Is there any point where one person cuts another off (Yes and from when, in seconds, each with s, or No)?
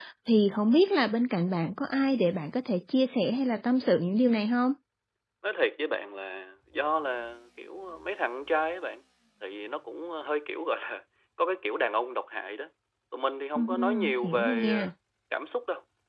Yes, from 13.6 s